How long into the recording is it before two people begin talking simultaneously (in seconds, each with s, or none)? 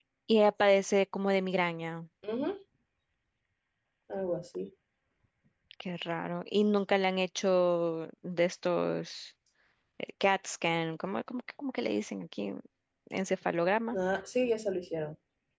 none